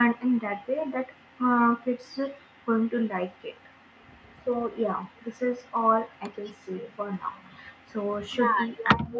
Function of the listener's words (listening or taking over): taking over